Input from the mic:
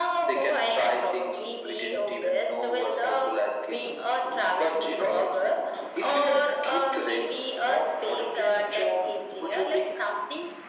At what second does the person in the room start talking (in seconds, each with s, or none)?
none